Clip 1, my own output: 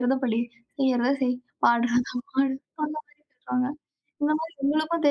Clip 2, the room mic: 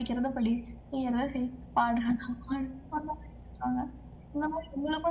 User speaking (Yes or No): No